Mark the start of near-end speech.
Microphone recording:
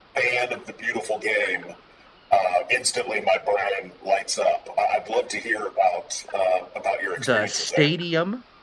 7 s

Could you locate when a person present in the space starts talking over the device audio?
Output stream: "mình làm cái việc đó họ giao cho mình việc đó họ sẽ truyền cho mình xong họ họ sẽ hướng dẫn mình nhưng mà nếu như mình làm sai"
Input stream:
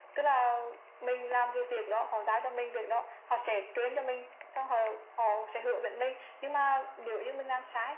none

